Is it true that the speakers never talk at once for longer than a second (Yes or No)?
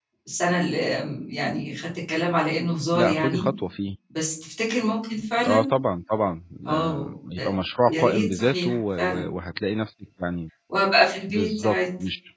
No